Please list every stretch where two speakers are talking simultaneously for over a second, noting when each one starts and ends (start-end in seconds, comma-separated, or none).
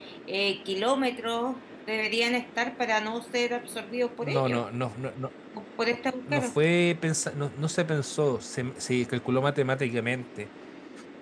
none